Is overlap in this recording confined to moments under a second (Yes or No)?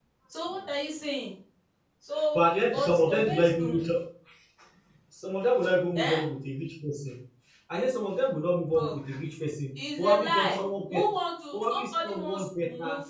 No